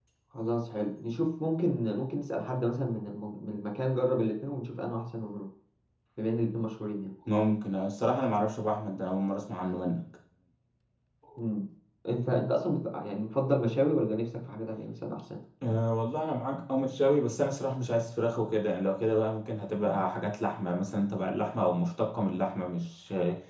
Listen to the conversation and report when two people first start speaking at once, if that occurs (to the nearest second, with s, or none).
none